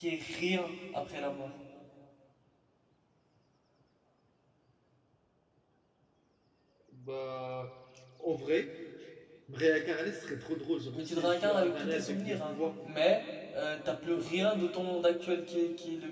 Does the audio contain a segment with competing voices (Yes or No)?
Yes